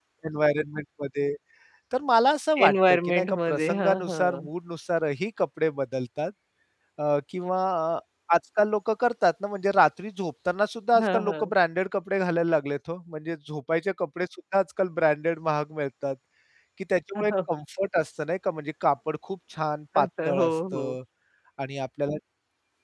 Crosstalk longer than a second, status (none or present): present